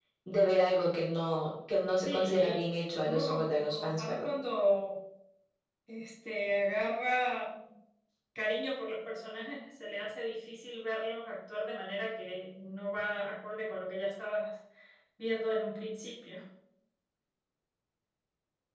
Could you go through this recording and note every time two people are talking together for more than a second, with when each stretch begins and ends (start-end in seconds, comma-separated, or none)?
2.0-4.3